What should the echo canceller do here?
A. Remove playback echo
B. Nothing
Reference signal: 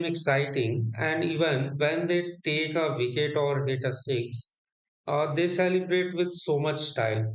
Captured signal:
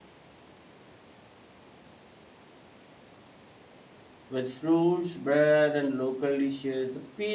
B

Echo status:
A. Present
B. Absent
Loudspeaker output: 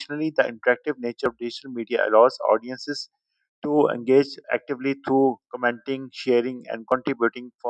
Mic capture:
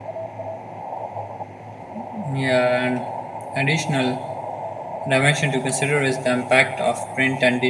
B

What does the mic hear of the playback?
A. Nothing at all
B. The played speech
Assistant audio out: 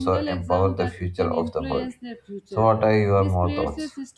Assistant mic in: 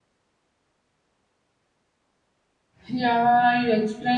A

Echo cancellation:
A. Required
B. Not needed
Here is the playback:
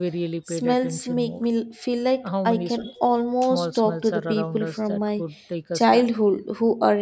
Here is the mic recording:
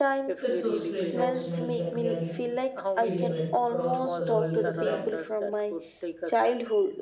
A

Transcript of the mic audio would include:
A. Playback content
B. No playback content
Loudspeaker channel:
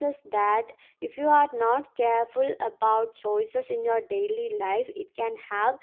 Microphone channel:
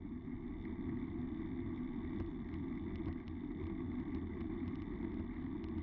B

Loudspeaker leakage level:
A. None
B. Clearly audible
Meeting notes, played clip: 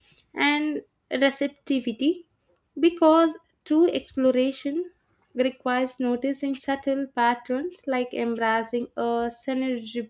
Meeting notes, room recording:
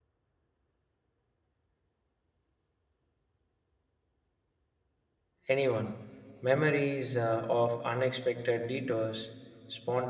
A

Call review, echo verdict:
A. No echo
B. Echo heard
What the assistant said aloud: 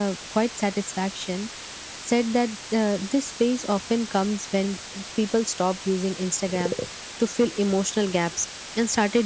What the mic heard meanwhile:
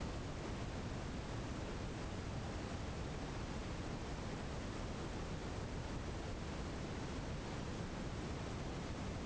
A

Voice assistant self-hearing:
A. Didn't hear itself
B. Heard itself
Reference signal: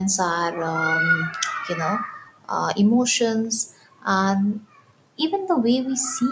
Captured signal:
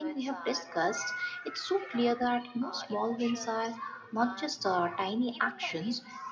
B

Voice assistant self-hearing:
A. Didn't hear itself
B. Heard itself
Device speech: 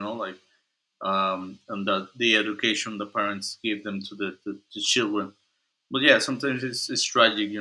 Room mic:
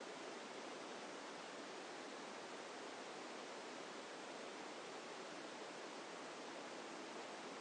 A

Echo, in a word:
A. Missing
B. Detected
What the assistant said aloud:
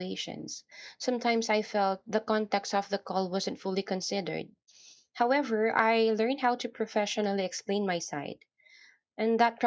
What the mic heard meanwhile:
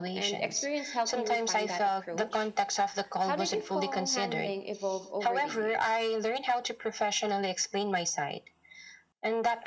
B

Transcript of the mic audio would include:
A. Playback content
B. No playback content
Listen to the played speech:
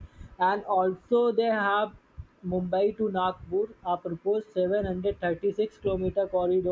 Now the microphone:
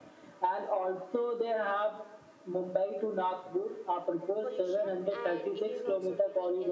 A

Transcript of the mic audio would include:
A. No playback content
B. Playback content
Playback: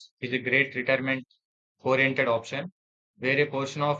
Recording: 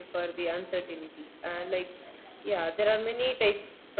A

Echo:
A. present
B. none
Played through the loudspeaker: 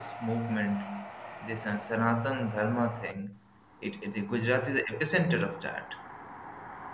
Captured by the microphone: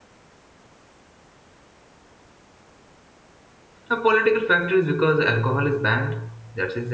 B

